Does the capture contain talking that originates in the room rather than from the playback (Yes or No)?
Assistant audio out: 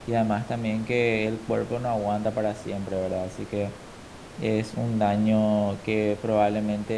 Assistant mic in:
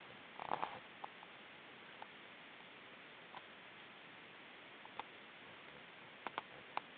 No